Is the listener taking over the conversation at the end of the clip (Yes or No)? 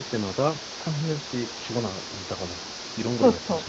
Yes